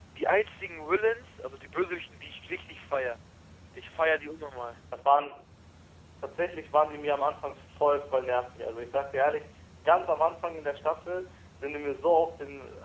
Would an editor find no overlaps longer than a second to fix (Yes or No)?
Yes